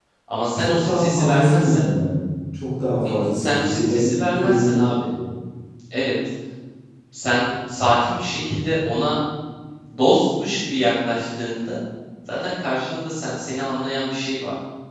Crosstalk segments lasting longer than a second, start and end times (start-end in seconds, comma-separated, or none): 0.6-1.8, 3.1-5.0